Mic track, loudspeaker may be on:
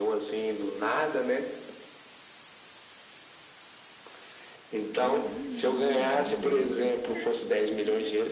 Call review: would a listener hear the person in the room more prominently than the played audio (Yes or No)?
No